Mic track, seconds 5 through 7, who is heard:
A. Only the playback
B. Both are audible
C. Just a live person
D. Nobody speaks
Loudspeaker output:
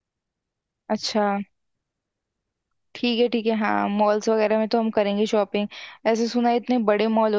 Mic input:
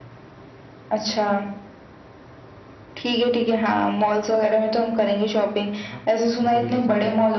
B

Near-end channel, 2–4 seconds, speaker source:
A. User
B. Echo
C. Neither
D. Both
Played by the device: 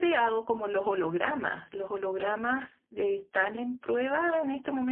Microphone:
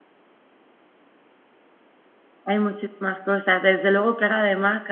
A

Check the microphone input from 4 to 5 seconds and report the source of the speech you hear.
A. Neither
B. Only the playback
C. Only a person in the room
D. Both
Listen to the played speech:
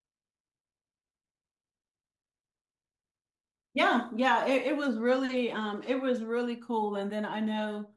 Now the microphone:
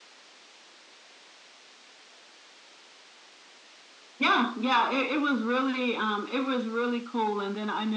B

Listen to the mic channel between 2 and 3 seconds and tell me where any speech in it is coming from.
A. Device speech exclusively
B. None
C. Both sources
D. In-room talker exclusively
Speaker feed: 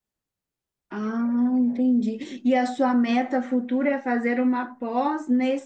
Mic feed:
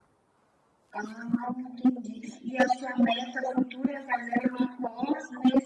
A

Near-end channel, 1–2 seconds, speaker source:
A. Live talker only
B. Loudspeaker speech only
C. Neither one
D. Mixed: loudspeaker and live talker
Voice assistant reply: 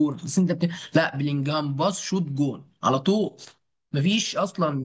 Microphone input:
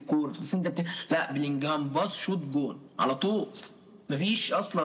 B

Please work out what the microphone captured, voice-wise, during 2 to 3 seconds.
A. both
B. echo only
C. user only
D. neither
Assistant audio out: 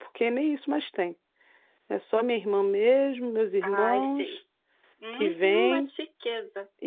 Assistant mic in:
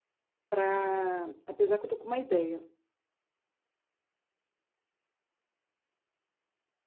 C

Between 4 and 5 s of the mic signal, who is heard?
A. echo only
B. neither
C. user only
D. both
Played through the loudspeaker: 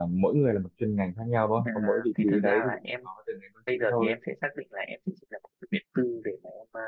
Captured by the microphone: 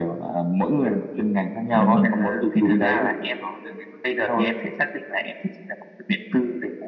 A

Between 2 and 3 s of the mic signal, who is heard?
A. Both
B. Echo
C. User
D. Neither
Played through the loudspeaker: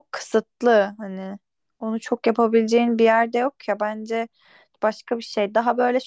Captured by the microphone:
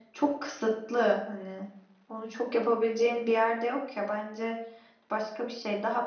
B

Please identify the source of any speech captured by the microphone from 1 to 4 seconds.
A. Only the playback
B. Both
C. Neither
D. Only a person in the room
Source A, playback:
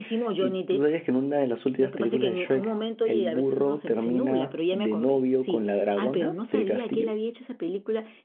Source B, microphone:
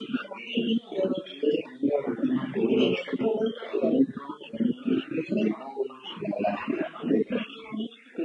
A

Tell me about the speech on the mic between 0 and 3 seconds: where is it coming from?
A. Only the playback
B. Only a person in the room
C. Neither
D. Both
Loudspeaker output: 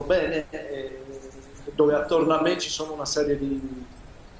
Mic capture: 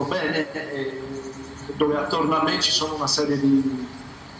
A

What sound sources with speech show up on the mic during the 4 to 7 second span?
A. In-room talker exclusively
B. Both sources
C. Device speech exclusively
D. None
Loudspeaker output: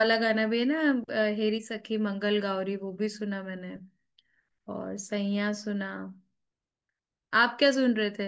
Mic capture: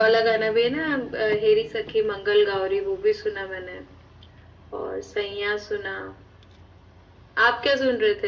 C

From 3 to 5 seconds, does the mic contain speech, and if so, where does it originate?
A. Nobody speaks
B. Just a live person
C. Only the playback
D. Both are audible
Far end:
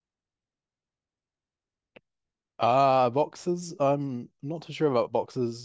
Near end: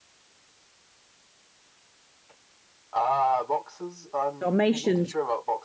D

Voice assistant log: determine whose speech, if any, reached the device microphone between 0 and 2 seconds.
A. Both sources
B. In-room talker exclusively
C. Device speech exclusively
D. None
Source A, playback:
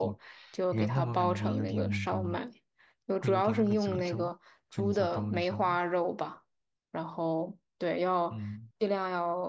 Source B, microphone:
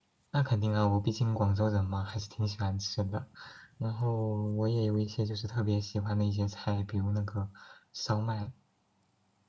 B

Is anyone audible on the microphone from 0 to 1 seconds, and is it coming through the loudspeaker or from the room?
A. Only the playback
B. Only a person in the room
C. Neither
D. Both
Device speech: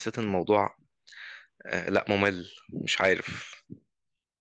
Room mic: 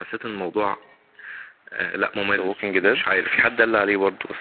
A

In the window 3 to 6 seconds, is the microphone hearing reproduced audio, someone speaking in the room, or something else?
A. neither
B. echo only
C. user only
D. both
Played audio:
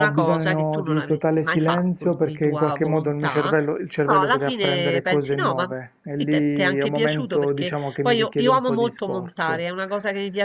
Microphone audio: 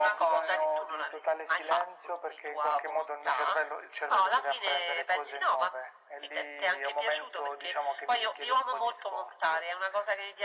B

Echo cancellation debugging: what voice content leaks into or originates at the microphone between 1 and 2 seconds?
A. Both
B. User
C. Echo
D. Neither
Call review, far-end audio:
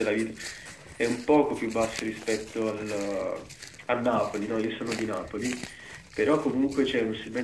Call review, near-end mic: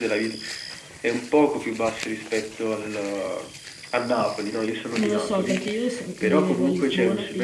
C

